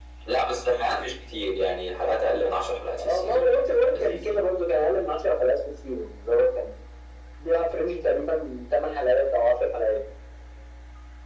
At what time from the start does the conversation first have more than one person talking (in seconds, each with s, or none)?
3.0 s